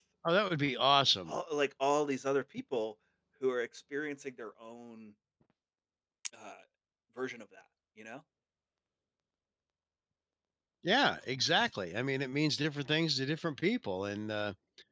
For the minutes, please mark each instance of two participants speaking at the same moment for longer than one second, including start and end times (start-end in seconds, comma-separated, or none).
none